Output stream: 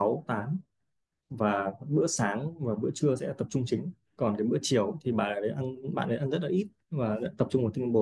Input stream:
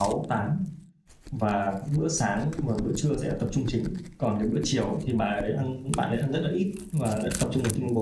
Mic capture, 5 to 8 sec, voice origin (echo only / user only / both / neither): echo only